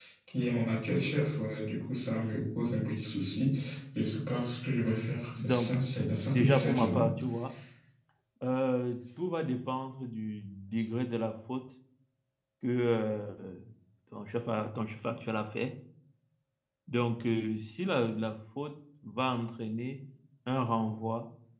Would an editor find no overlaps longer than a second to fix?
No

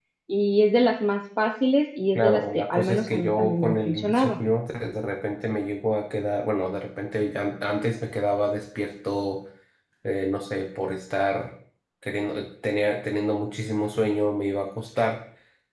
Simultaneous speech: Yes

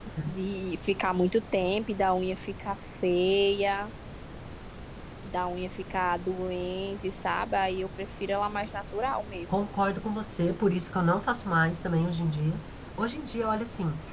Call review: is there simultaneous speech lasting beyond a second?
No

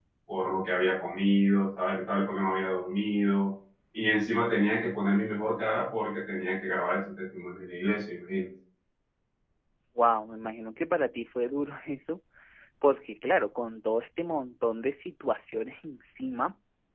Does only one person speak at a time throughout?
Yes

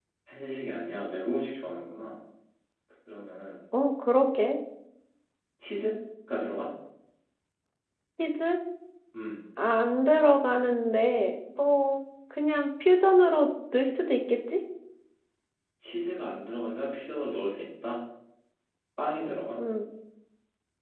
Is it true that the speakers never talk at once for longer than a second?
Yes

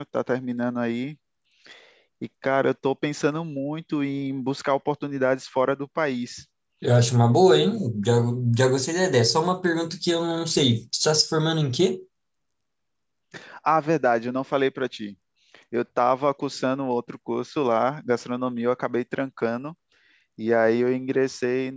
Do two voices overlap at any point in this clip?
No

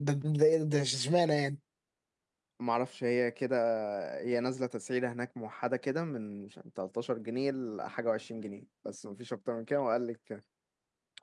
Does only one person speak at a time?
Yes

